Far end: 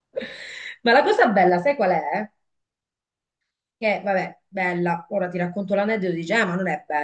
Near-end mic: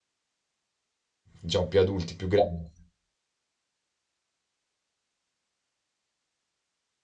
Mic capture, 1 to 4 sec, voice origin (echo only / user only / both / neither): user only